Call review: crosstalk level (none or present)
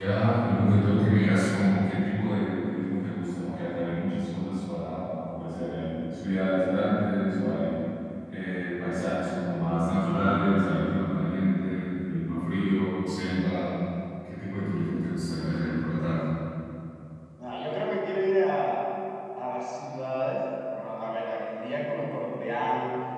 none